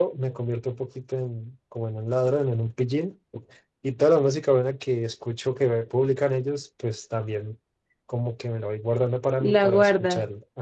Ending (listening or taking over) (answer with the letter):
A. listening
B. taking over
A